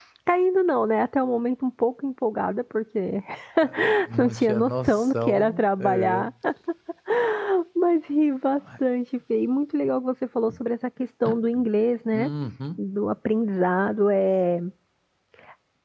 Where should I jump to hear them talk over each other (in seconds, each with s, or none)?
4.2 s